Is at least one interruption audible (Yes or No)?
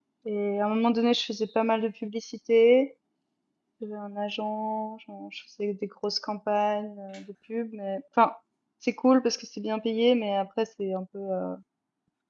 No